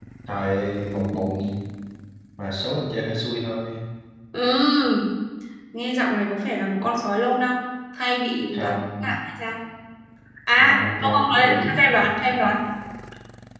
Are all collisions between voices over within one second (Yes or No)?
No